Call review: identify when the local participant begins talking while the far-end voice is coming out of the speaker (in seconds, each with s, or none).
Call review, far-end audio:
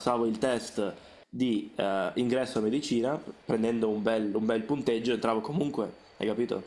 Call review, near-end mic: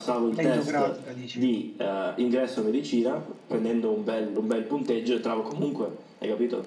0.3 s